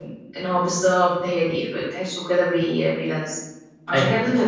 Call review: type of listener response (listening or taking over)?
listening